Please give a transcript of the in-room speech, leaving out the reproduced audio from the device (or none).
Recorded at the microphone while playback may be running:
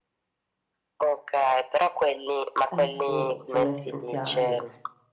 Eh sì, sono essenziali